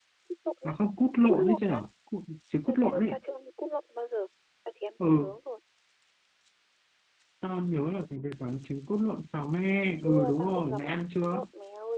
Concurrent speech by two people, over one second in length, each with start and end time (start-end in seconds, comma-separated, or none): 10.0-11.4